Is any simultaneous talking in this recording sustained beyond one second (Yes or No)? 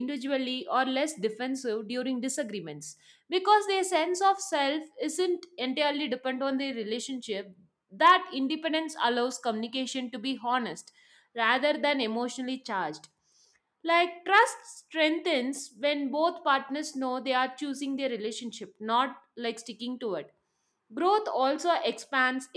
No